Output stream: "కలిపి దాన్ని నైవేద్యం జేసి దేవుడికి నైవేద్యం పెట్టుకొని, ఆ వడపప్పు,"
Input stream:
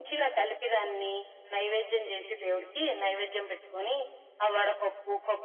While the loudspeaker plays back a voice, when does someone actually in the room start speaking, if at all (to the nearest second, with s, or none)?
none